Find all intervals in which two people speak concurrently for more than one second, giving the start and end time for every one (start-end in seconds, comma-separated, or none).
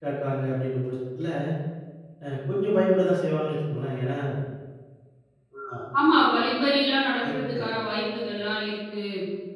none